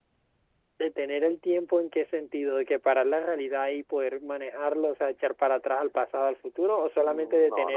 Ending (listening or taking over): taking over